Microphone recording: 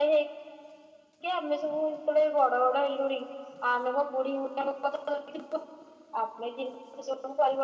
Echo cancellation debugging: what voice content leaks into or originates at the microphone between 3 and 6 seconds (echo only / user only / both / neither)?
echo only